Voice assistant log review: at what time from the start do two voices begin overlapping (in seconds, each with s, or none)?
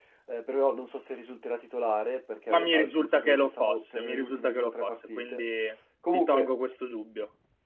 2.5 s